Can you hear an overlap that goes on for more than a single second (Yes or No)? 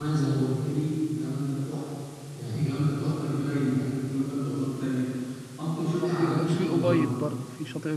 Yes